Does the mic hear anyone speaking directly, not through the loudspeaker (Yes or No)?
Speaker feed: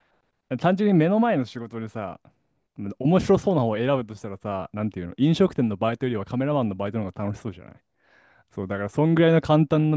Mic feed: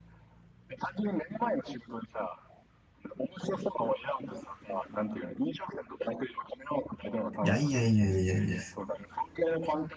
Yes